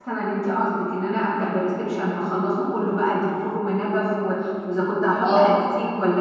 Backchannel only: Yes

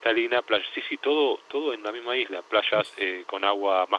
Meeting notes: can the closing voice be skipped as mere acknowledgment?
Yes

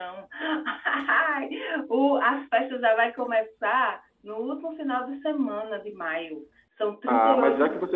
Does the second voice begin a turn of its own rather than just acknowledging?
Yes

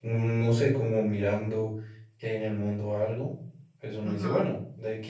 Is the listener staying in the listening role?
Yes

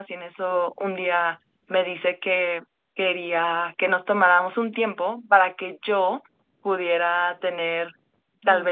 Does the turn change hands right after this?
No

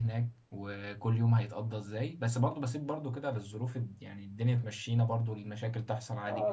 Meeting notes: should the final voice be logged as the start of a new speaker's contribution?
Yes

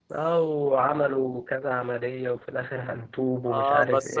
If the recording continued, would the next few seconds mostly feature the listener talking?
Yes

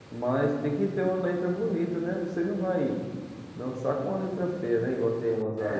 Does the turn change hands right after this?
Yes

